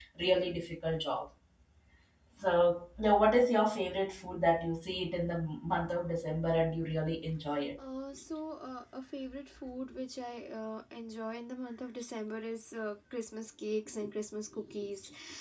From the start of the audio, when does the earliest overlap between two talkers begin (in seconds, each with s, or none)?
none